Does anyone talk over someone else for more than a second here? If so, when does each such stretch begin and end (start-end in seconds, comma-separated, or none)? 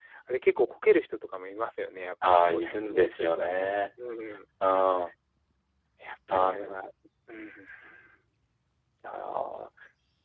2.3-3.7